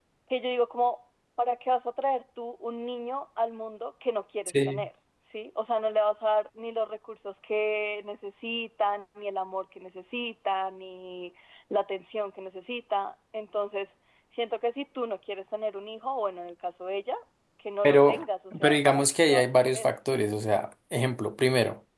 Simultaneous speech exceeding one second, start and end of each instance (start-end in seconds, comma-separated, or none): 18.6-19.9